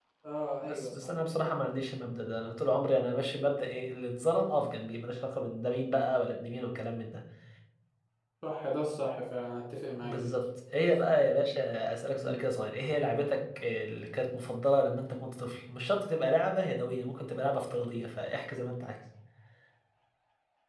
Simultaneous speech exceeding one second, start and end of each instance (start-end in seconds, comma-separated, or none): none